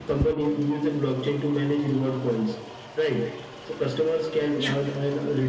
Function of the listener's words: listening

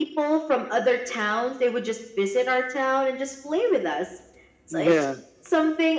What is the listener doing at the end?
listening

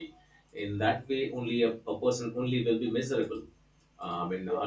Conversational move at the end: listening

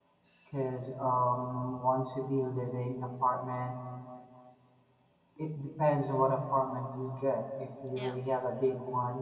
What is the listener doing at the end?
listening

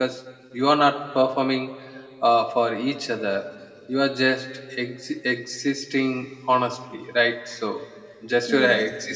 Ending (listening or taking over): listening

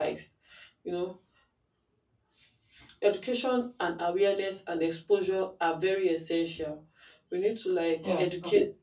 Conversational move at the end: listening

